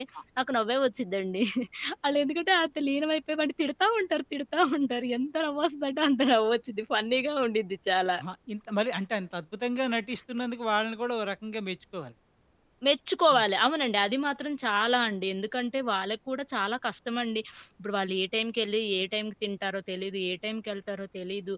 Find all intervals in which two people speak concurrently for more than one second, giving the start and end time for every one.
none

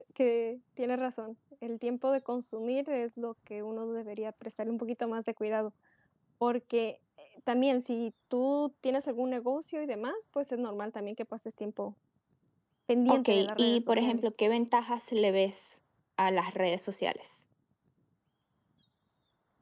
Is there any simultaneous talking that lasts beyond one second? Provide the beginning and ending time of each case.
13.1-14.3

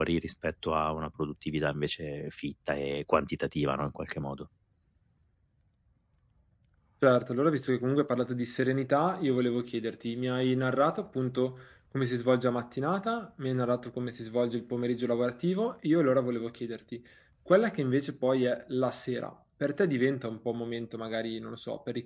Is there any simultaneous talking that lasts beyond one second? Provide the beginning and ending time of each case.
none

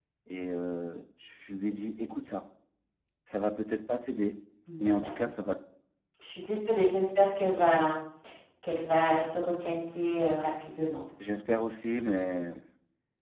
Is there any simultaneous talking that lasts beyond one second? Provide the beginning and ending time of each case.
none

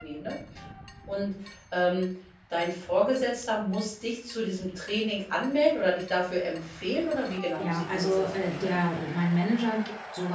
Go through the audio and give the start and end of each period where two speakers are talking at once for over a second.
7.6-8.8

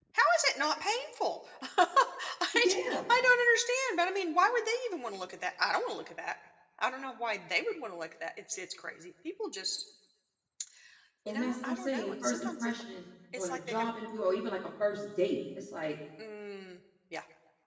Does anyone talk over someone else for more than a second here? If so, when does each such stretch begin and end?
11.3-12.7

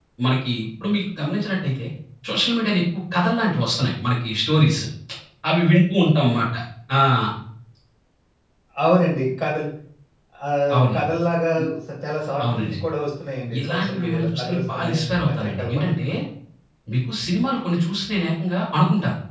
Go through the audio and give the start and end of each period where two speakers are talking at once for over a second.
13.6-16.1

